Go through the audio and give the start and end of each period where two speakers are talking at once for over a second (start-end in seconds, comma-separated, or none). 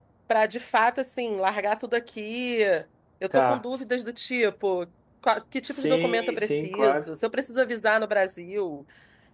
5.7-7.0